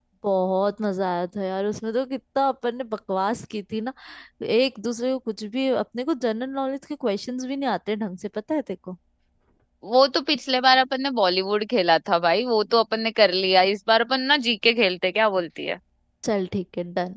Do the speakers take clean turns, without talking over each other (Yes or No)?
Yes